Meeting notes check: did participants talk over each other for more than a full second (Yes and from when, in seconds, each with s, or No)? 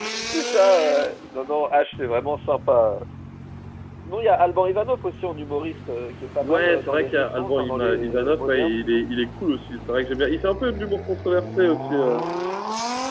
Yes, from 6.4 s